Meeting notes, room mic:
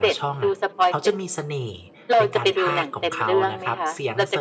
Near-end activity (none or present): present